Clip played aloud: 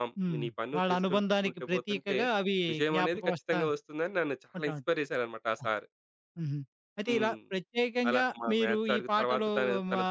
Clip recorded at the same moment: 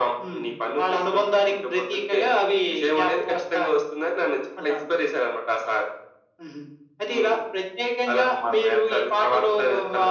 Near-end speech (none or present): none